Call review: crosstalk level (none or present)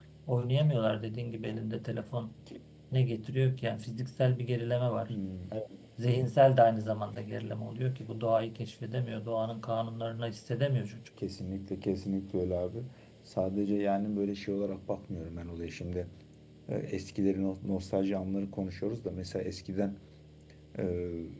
none